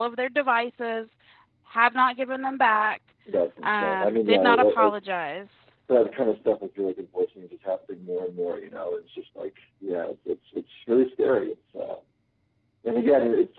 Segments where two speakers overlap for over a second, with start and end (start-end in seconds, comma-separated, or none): 3.6-4.9